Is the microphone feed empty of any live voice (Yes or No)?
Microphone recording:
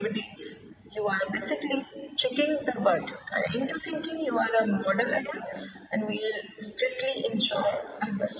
Yes